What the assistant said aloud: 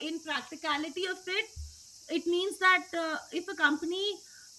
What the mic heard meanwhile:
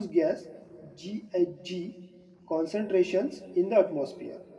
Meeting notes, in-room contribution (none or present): present